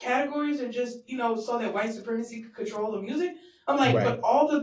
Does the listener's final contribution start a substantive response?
No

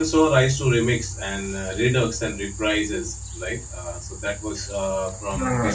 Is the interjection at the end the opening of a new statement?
No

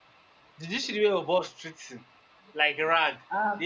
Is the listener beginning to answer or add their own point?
Yes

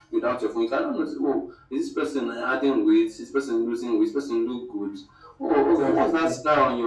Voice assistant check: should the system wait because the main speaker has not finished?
Yes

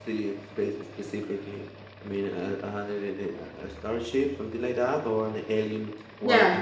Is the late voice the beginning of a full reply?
Yes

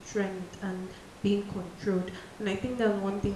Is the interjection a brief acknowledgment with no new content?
Yes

